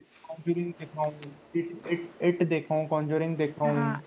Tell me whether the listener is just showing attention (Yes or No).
No